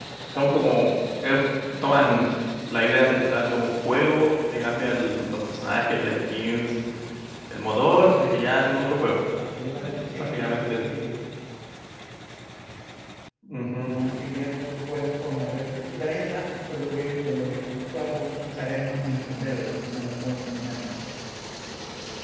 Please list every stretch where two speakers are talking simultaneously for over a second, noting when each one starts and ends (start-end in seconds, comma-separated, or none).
9.7-10.9